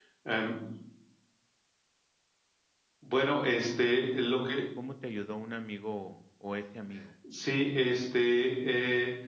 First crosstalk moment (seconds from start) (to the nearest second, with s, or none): none